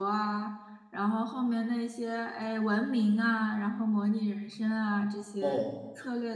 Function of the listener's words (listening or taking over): listening